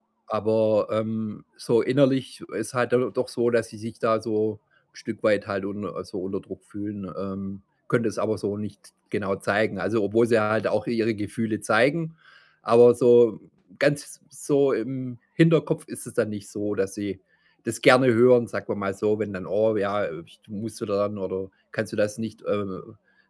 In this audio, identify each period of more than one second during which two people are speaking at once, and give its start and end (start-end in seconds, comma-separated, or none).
none